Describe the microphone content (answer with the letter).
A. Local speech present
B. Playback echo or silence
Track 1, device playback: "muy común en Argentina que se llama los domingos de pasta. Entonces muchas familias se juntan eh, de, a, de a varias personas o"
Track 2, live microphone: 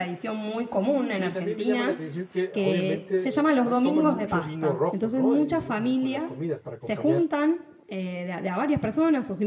A